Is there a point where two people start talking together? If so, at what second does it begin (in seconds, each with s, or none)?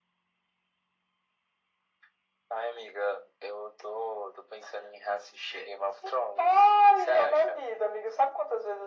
6.4 s